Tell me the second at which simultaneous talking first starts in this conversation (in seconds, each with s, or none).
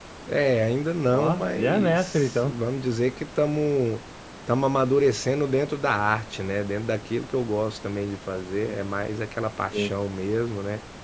1.1 s